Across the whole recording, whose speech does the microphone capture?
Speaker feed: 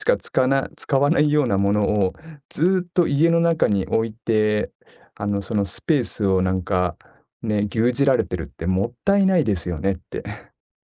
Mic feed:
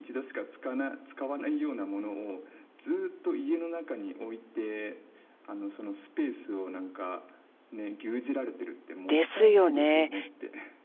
both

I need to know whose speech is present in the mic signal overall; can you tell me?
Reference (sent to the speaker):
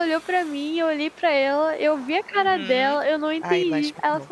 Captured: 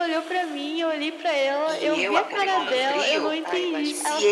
both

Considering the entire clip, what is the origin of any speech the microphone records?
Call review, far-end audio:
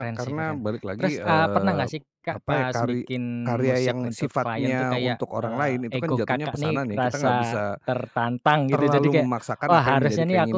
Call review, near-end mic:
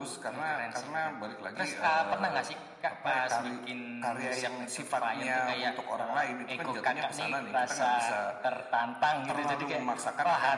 echo only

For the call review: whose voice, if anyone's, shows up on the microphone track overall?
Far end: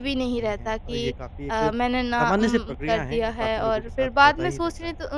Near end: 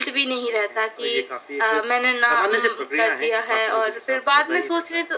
echo only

